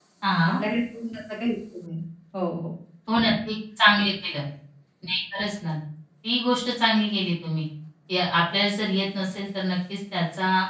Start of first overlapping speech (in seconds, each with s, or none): none